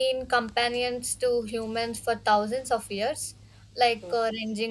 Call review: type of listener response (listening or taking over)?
listening